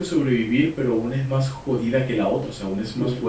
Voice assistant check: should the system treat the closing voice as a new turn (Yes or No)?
Yes